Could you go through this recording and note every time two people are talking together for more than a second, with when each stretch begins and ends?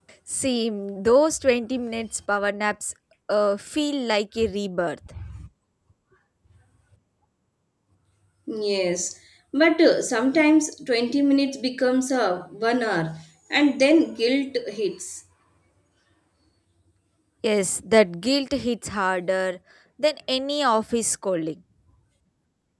none

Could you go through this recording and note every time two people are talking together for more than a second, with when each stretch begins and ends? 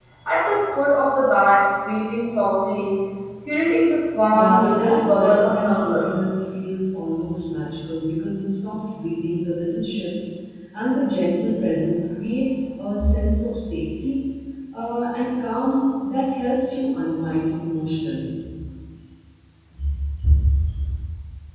4.3-6.0

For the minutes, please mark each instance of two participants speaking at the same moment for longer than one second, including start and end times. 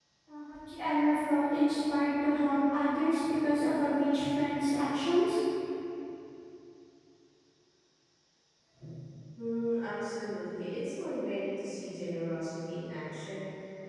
none

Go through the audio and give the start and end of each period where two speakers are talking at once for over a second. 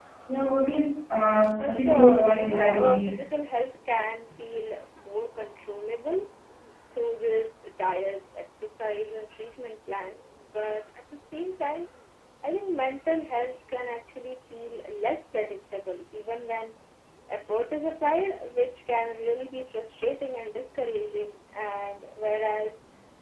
1.6-3.2

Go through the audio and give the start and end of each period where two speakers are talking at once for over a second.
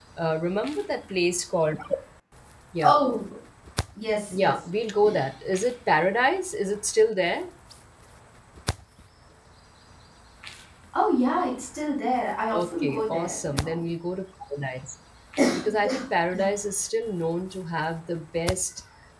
12.5-13.8

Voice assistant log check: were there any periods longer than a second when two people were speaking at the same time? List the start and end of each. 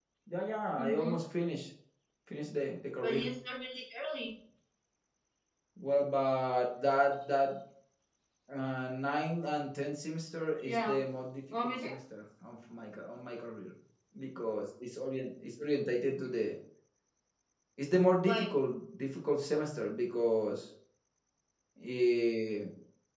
none

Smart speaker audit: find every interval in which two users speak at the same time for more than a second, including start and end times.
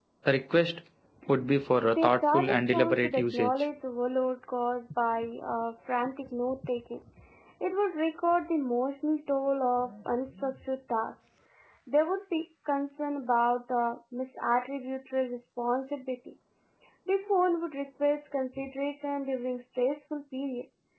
1.9-3.5

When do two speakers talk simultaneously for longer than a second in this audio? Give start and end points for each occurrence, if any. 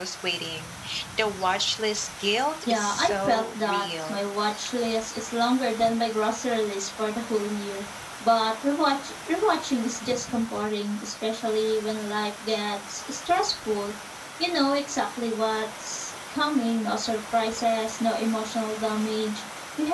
2.7-4.2

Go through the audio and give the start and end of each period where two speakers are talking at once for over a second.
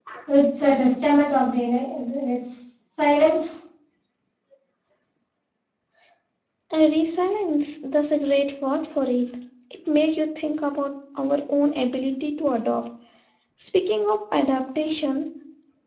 none

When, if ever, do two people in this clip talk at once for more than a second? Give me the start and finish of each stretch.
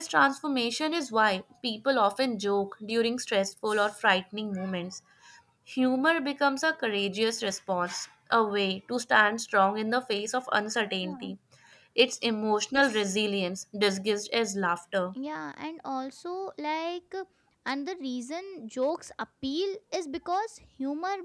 none

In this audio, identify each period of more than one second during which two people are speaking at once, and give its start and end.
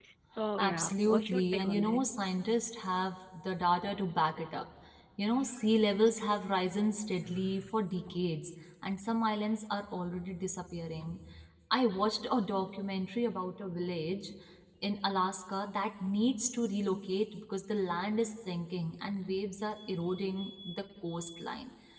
0.6-2.1

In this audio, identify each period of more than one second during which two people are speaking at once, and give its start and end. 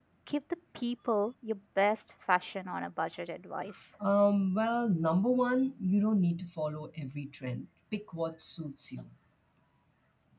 none

